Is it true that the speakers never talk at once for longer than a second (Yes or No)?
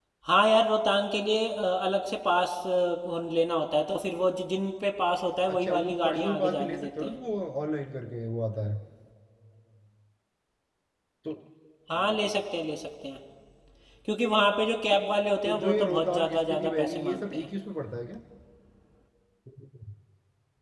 No